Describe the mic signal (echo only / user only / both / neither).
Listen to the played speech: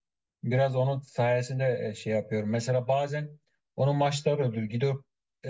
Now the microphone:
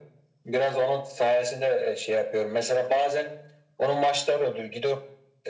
echo only